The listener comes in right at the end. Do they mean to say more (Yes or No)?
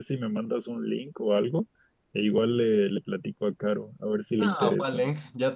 Yes